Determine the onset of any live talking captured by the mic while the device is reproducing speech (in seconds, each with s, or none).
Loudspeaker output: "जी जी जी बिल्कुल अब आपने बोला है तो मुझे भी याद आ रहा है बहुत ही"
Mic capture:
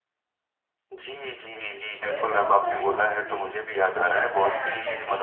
2.0 s